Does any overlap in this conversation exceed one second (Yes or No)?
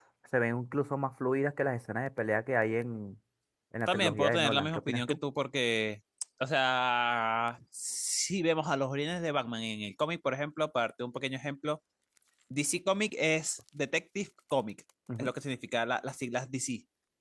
Yes